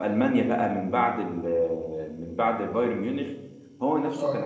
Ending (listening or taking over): listening